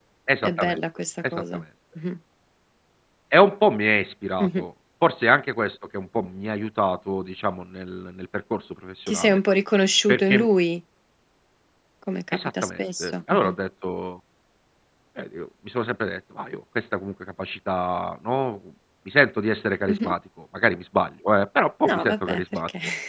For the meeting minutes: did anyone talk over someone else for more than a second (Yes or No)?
Yes